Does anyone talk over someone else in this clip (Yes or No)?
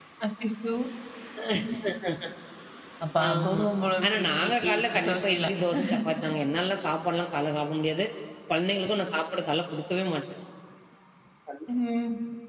Yes